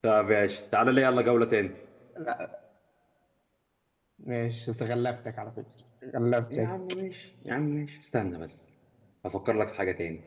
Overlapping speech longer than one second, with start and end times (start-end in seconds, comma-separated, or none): none